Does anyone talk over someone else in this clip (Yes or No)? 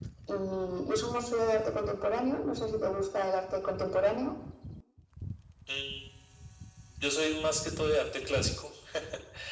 No